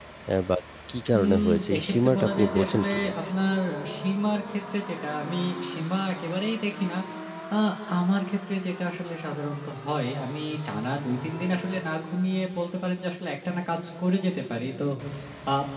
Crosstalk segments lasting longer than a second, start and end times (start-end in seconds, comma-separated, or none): 1.2-3.1